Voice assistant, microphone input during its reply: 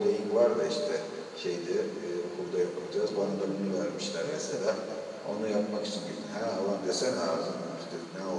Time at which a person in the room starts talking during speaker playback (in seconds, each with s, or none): 3.0 s